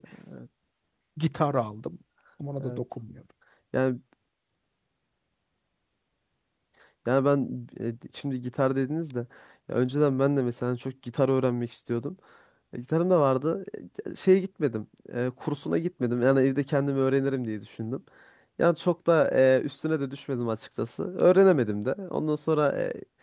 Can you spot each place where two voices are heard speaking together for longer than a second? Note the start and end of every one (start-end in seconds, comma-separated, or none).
none